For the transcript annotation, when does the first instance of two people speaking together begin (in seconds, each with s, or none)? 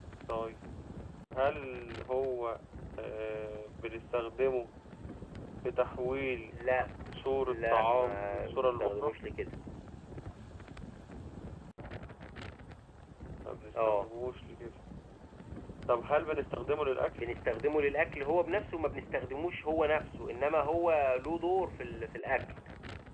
7.5 s